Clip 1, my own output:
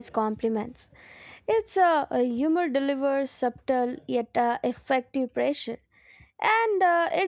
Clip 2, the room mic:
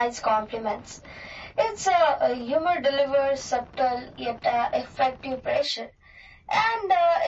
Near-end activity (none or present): none